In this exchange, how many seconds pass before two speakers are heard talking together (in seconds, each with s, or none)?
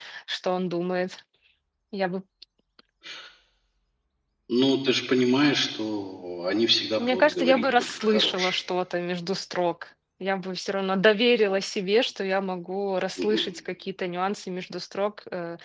7.0 s